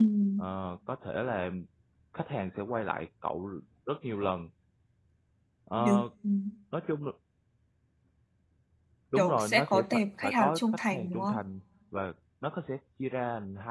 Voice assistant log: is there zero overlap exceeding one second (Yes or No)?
No